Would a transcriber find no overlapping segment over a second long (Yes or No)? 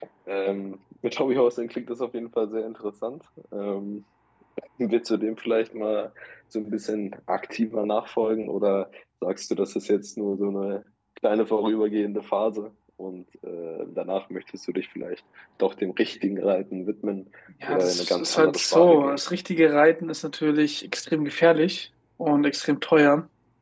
No